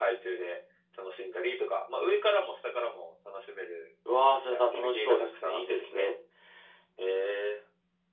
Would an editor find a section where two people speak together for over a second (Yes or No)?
Yes